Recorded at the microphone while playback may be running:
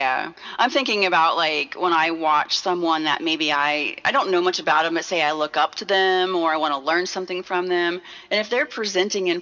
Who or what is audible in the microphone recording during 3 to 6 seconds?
echo only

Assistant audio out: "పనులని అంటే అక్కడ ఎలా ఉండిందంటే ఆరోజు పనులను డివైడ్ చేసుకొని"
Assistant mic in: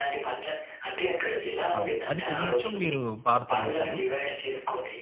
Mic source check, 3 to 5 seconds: both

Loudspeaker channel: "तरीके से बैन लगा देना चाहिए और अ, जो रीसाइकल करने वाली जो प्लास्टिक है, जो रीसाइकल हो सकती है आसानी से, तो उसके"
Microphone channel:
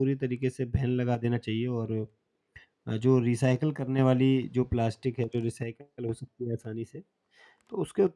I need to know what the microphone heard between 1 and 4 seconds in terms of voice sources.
echo only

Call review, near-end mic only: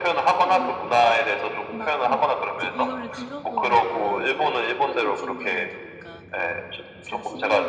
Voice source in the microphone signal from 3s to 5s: both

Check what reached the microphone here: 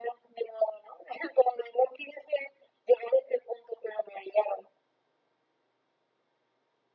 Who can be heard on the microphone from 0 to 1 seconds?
echo only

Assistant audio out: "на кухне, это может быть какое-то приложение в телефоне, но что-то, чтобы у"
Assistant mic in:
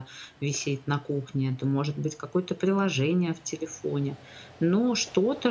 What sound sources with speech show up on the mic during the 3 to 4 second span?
echo only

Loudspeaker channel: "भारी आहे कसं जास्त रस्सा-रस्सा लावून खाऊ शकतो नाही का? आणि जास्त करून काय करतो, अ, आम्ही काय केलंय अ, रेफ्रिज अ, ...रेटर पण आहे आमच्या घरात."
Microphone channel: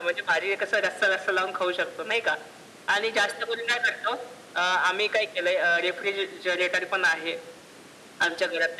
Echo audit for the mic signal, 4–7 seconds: echo only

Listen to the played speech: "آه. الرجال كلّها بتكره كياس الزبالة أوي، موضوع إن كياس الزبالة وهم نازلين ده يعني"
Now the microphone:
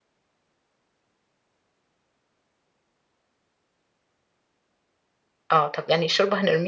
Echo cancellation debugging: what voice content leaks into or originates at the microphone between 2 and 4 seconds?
neither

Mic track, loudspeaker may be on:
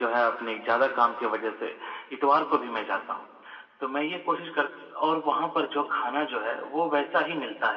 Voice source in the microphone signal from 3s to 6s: echo only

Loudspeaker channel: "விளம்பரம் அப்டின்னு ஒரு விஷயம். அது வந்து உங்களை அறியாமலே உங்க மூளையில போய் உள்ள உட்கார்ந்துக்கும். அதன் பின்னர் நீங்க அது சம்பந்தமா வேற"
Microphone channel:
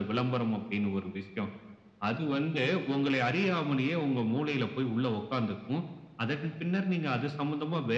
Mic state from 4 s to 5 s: echo only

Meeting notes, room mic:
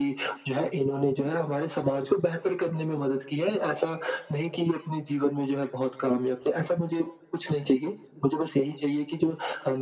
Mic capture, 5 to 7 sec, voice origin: echo only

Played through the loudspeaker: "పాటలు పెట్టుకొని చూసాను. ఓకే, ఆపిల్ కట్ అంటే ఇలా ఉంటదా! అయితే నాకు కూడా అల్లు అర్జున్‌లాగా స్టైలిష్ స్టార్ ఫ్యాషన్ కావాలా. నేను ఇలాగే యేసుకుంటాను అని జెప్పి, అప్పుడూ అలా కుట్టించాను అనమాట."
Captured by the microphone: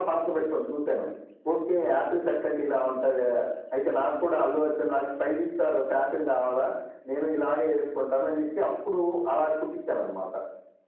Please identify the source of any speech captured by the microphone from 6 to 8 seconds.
echo only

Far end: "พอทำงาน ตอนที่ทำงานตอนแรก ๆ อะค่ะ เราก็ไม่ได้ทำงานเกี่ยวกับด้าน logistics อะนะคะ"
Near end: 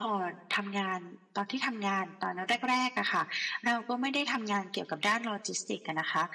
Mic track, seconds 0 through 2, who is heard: echo only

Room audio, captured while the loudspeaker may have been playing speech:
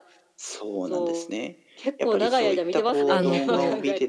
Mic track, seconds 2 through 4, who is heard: both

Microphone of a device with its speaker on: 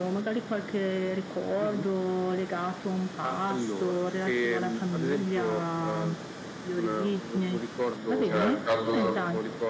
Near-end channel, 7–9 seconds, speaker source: both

